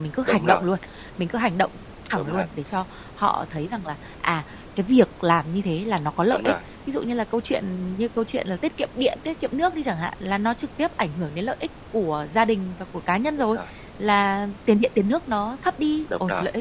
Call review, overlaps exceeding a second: none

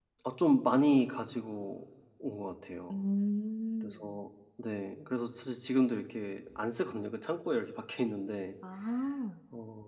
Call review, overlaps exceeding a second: none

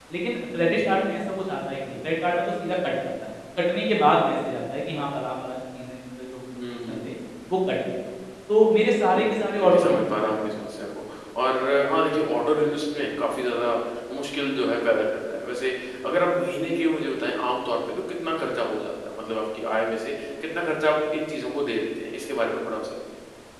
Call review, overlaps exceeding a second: present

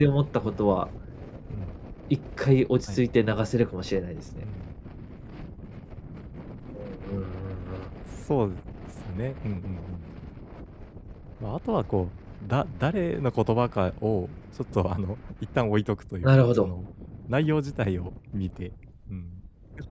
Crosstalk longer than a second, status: none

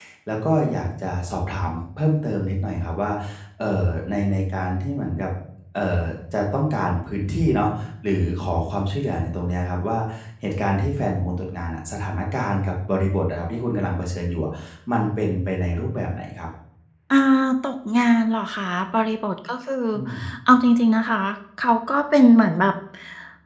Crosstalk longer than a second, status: none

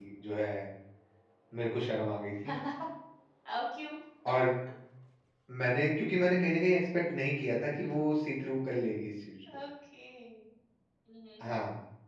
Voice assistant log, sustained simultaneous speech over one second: none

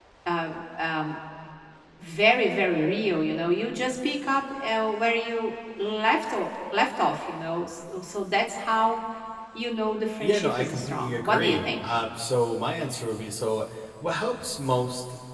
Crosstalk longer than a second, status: present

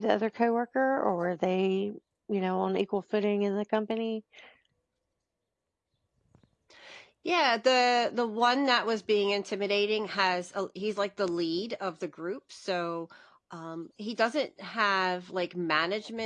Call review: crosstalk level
none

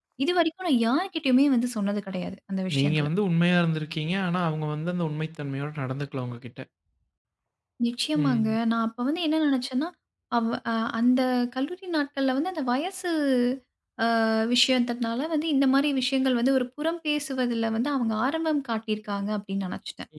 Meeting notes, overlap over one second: none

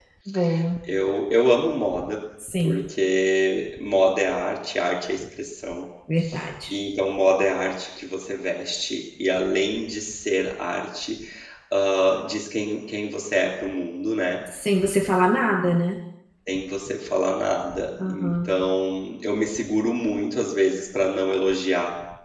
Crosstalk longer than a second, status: none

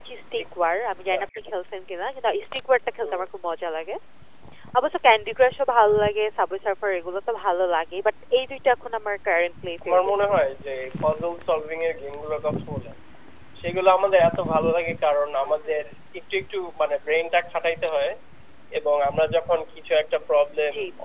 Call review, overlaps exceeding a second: none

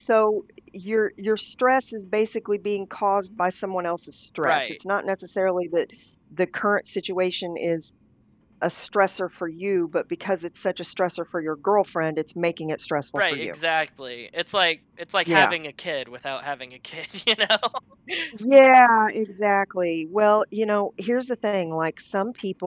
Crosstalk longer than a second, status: none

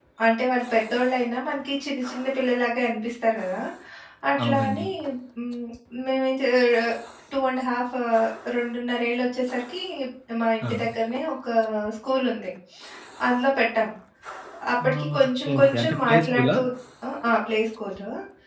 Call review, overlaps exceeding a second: present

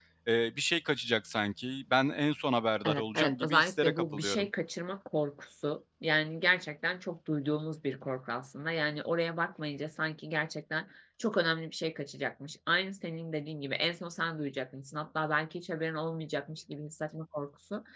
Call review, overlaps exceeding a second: present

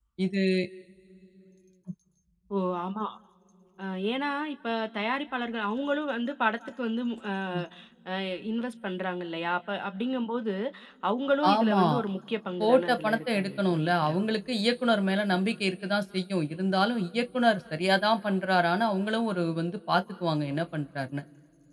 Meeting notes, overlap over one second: present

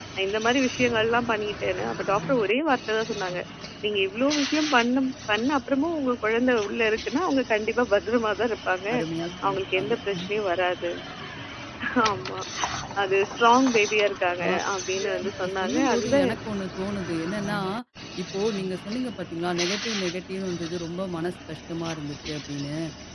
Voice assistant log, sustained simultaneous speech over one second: present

